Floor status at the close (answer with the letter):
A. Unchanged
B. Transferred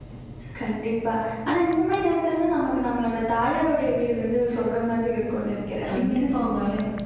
B